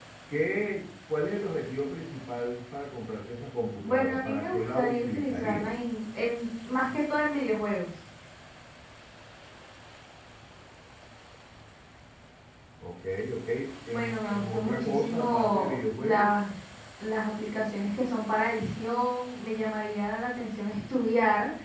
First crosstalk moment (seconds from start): 4 s

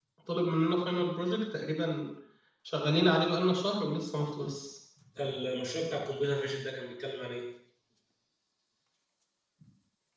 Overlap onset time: none

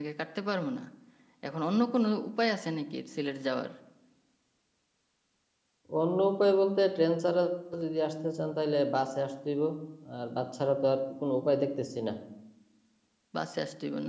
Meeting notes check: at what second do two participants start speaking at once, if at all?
none

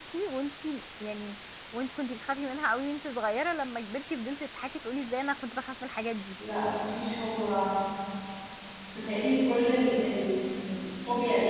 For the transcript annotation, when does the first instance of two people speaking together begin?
none

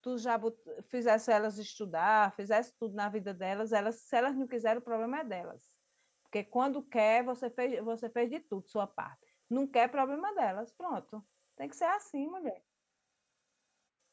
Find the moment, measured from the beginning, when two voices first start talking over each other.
none

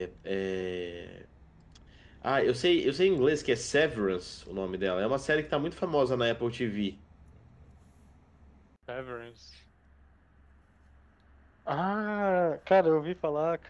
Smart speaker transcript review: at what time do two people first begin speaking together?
none

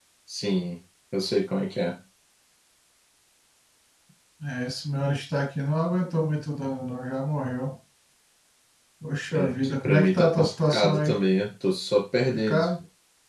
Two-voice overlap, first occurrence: 9 s

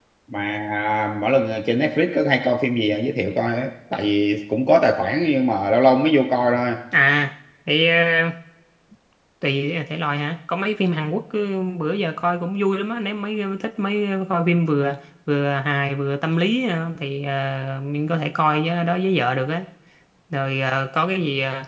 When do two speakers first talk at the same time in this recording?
none

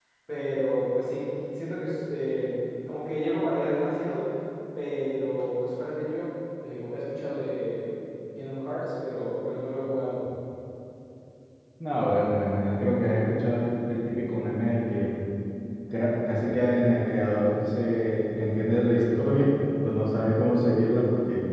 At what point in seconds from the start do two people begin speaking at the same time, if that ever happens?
none

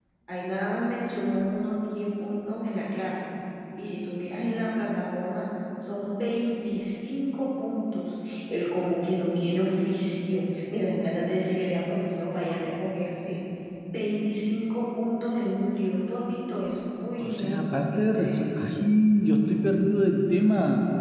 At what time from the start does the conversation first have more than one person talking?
17 s

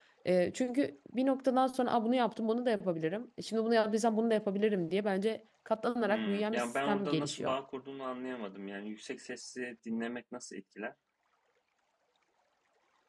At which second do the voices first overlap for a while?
6 s

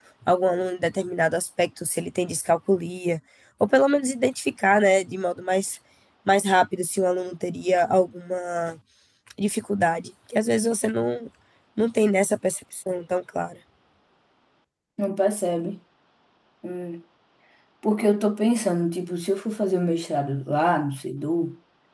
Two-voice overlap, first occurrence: none

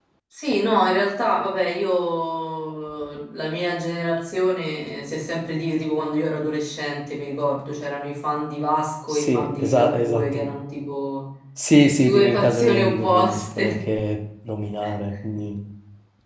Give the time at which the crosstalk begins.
9 s

